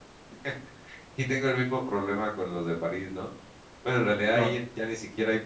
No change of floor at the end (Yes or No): Yes